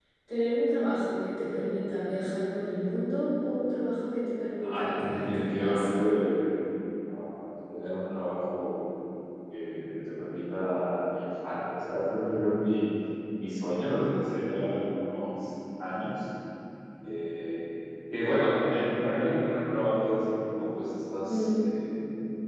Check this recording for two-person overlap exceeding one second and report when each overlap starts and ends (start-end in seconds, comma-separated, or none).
4.6-5.9